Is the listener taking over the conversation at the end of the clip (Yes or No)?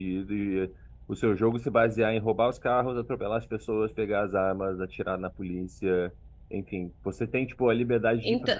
No